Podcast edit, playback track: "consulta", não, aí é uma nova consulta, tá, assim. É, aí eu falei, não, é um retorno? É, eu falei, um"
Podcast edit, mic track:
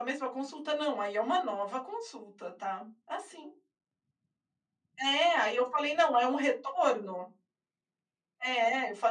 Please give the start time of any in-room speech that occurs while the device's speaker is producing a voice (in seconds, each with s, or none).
none